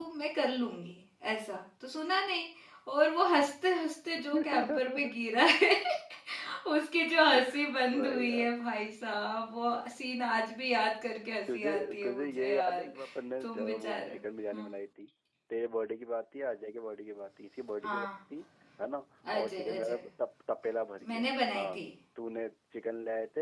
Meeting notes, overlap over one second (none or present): present